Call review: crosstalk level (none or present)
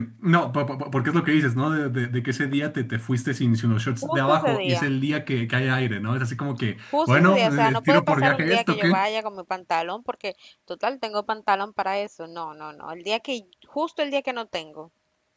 present